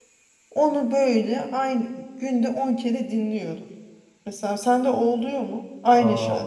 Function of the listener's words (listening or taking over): taking over